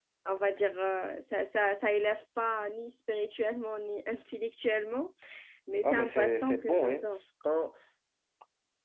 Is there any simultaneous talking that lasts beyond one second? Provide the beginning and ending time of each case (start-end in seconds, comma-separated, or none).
5.8-7.0